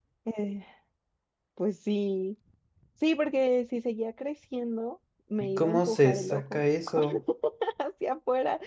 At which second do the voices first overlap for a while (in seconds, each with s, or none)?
5.4 s